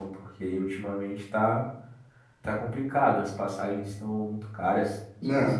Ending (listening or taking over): taking over